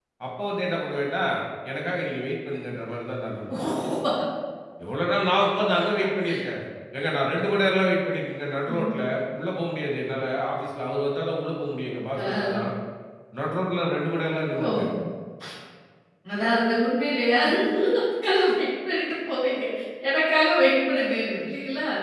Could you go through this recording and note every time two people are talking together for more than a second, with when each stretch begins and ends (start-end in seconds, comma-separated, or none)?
none